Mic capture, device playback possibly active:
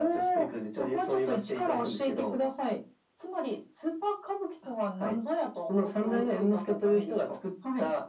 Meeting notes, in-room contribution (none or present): none